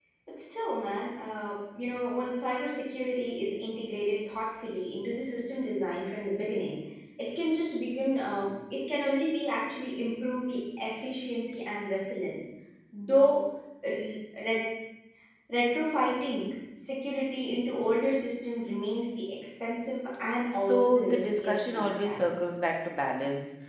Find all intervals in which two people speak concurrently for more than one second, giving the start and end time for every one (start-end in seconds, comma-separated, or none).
20.5-22.2